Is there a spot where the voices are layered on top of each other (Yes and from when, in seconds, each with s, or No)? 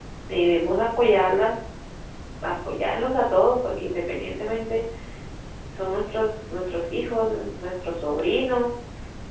No